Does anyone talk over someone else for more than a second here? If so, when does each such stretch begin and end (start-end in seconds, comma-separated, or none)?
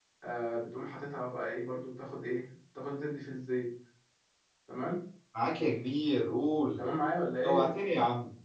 none